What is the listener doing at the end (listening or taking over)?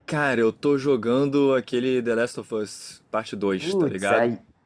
taking over